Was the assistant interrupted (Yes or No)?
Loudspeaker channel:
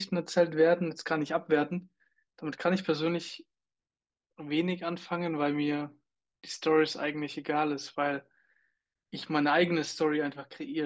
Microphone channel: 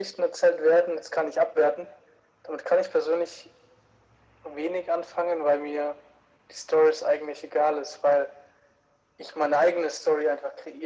No